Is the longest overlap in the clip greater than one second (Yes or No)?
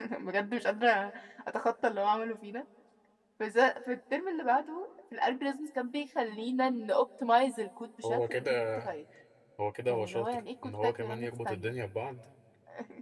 Yes